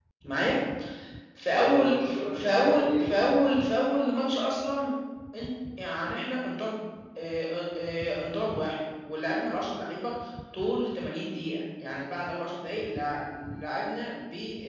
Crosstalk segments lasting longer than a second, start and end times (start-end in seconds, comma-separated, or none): 1.5-3.1